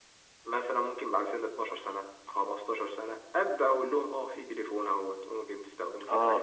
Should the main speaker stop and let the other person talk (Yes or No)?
Yes